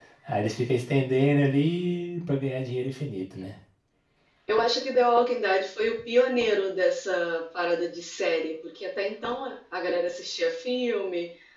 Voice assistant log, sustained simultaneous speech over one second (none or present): none